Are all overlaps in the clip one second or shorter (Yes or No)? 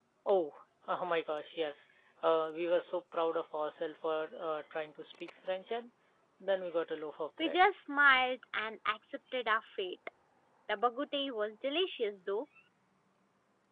Yes